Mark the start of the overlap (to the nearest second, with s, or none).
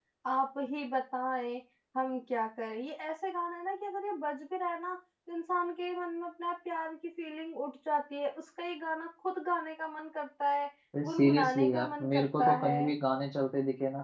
11 s